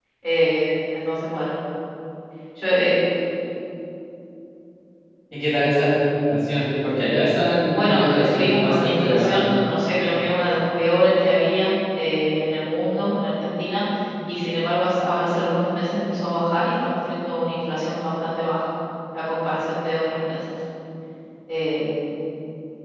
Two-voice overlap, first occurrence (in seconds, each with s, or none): 7.7 s